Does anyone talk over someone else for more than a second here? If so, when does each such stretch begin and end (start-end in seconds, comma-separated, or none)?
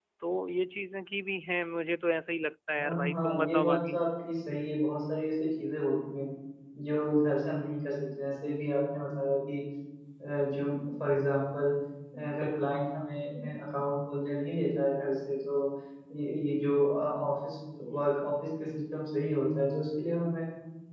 2.8-4.0